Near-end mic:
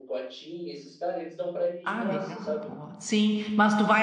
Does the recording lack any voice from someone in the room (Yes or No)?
No